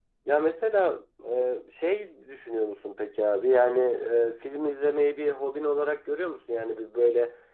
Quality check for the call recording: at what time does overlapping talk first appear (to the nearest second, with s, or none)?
none